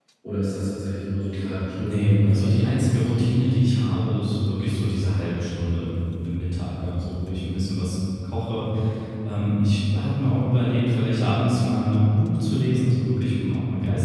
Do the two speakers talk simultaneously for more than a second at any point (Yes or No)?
Yes